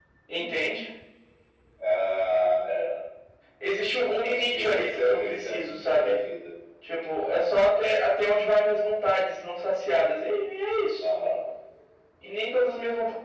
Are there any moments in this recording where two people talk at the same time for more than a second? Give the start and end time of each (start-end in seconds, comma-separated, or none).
4.2-6.2